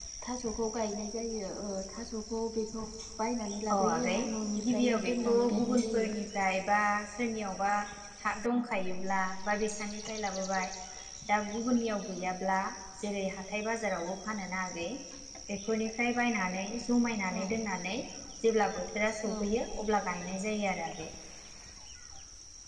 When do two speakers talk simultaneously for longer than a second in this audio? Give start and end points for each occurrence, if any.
4.7-6.1

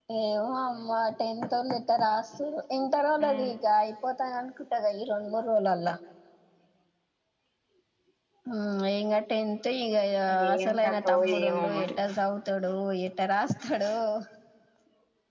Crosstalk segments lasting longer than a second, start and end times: 10.6-11.9

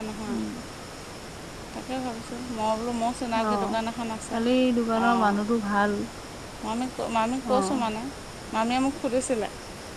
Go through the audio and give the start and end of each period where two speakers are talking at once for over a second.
none

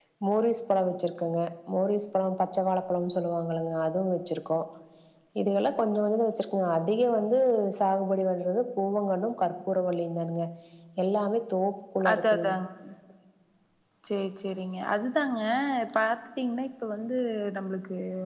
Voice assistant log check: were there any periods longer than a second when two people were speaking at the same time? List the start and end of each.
none

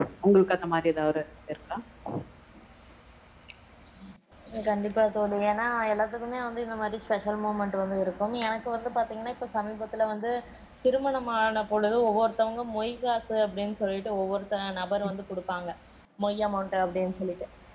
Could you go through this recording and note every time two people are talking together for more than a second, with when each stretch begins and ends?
none

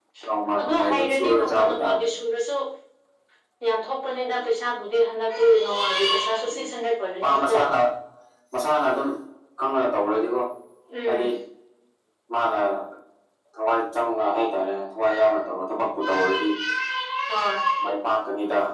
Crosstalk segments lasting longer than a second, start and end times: 0.6-2.1

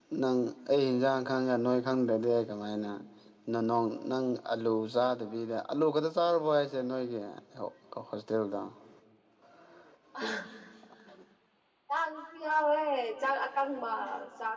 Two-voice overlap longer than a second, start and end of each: none

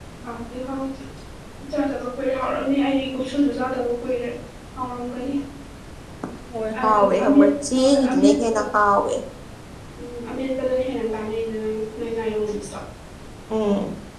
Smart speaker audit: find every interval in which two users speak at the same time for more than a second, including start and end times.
6.8-8.6

